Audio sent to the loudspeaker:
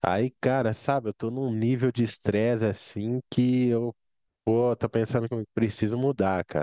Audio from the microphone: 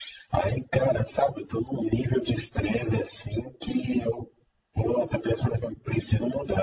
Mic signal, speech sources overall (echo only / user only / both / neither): echo only